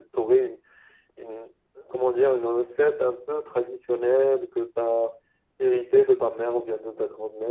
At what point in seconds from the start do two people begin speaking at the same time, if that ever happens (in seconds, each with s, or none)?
none